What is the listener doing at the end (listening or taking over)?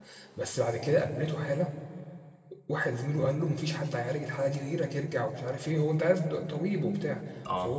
listening